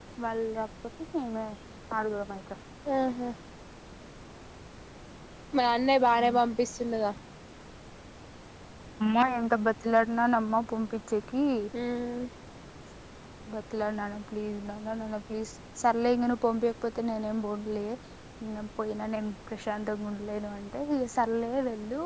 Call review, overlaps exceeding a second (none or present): none